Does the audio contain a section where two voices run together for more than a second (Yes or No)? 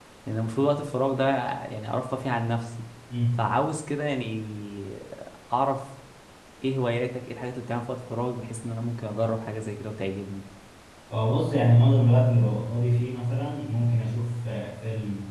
No